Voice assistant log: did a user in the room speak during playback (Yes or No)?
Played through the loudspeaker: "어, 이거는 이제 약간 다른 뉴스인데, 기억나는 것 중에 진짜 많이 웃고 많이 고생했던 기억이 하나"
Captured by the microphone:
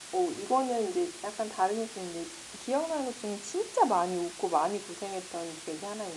No